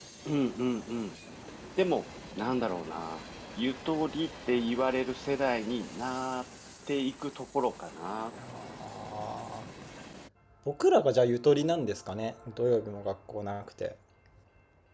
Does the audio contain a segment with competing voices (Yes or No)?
No